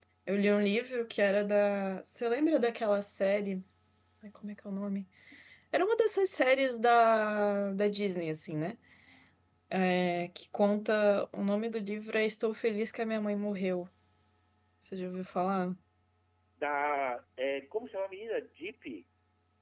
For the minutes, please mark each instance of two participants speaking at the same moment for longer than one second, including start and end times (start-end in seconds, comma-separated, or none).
none